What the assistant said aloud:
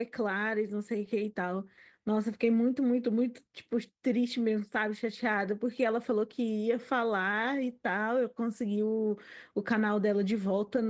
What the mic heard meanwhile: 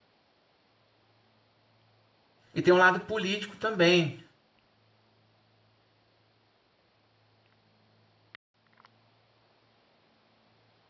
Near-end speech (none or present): present